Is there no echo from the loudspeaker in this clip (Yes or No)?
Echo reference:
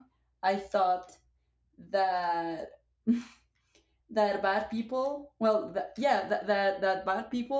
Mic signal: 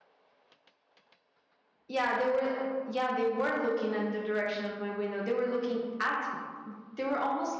Yes